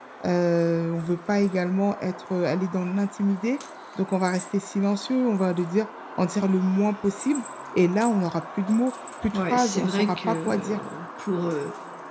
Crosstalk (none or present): present